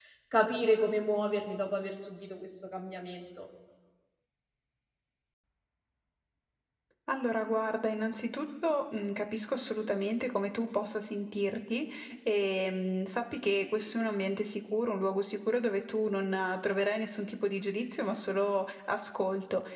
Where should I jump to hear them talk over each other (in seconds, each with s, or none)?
none